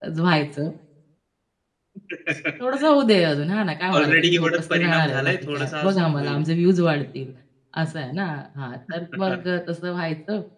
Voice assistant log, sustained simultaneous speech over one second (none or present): present